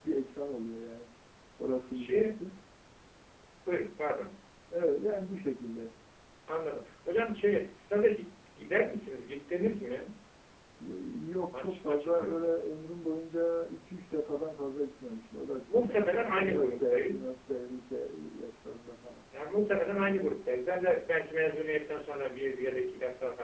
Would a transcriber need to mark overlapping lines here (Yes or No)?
Yes